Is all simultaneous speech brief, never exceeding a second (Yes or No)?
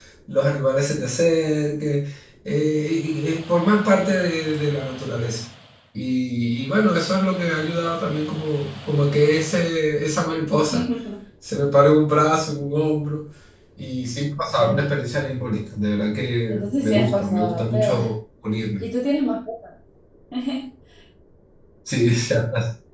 No